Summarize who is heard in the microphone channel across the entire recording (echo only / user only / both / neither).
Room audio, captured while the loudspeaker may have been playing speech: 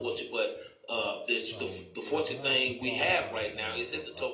both